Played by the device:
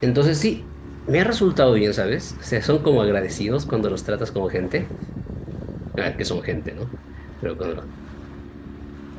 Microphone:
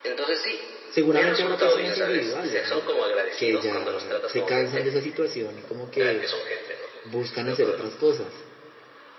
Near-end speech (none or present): present